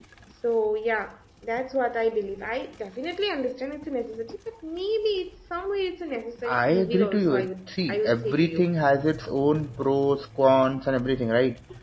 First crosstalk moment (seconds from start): 6 s

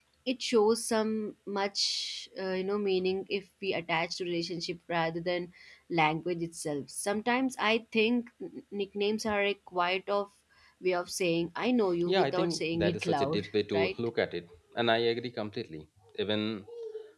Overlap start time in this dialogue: 12 s

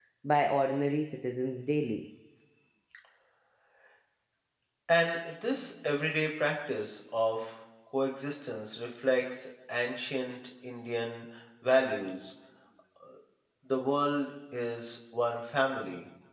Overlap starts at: none

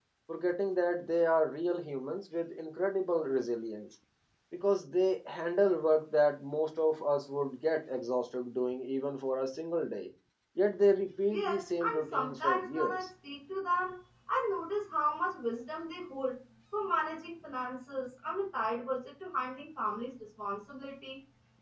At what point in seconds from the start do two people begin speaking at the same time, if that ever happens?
11 s

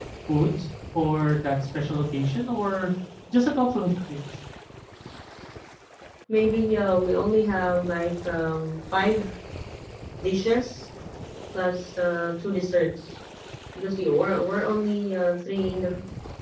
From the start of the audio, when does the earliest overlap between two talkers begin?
none

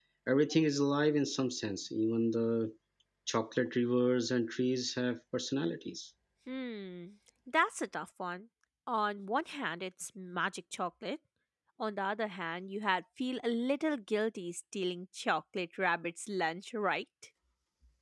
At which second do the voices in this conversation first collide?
none

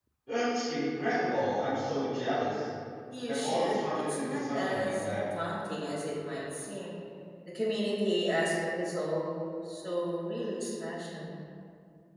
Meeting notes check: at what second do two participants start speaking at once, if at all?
3 s

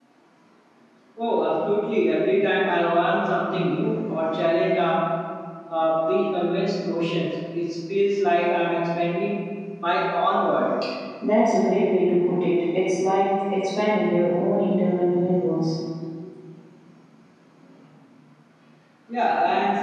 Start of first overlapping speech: none

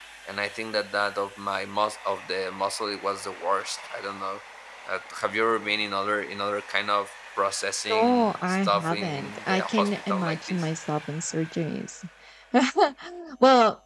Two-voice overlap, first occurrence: 8 s

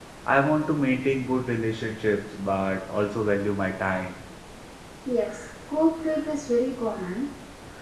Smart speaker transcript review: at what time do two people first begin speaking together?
none

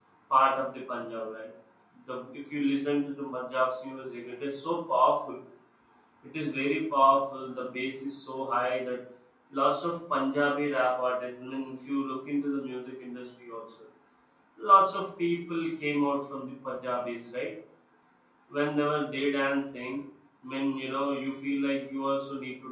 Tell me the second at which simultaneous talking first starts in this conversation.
none

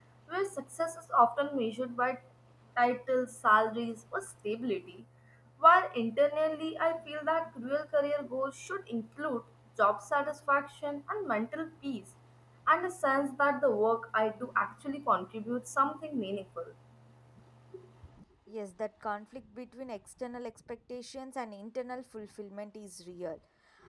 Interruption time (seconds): none

